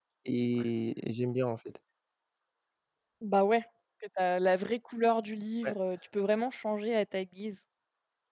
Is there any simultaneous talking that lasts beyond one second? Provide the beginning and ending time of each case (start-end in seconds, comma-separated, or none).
none